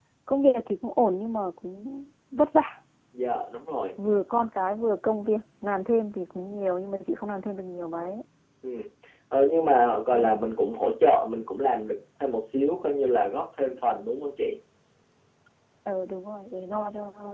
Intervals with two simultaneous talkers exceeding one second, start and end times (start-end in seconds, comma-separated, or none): none